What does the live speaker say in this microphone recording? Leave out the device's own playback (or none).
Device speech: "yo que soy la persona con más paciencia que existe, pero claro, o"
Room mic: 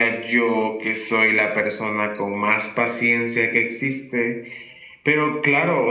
none